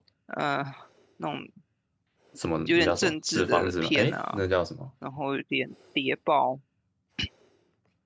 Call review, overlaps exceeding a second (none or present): present